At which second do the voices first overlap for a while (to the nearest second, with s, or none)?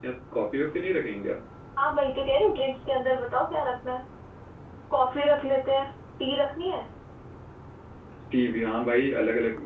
none